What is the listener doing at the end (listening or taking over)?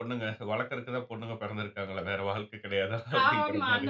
taking over